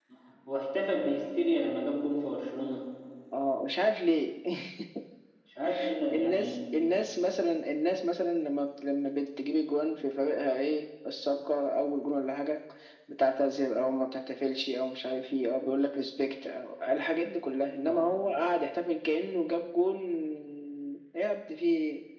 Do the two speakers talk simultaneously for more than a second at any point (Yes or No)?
No